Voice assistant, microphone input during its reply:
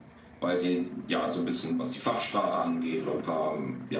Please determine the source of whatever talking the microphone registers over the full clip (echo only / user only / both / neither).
echo only